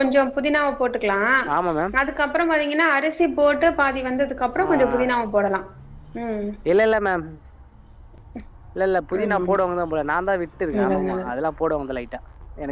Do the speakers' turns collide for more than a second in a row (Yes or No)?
No